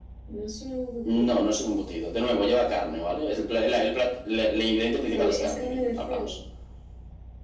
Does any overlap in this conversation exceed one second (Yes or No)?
Yes